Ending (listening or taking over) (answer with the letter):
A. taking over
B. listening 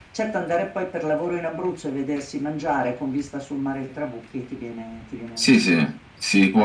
A